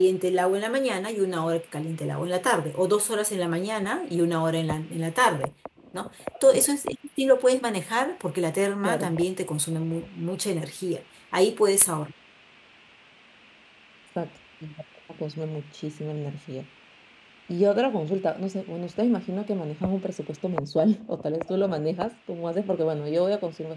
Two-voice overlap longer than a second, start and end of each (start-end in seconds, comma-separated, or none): none